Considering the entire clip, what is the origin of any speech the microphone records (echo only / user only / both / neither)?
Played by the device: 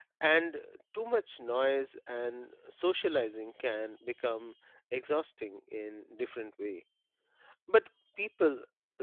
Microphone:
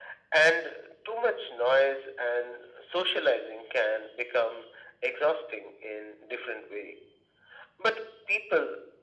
echo only